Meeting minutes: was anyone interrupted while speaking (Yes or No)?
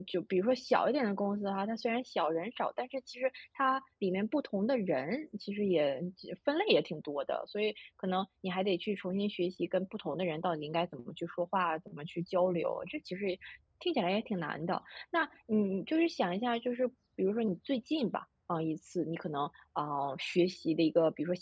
No